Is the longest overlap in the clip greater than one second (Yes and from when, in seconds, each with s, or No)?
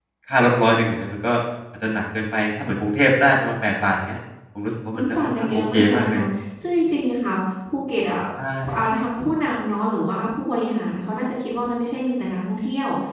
Yes, from 4.9 s